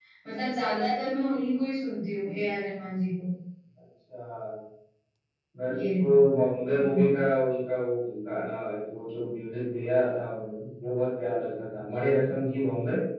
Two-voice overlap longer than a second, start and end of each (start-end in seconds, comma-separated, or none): none